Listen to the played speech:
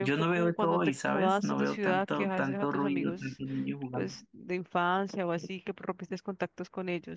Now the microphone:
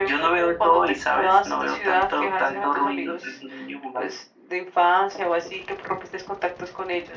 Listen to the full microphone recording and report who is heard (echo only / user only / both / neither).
echo only